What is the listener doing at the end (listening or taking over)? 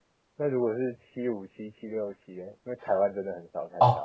taking over